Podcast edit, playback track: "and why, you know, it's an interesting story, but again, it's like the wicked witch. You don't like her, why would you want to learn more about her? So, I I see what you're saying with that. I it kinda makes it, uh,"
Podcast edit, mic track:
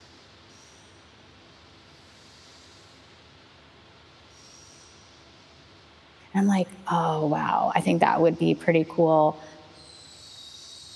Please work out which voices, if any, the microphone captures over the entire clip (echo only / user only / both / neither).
user only